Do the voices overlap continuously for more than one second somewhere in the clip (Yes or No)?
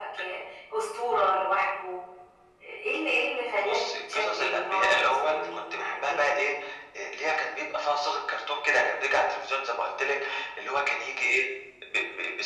Yes